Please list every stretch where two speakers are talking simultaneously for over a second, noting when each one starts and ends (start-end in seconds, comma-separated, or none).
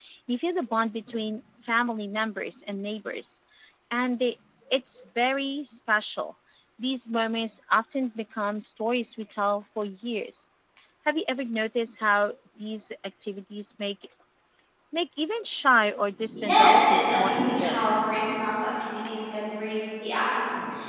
16.3-17.8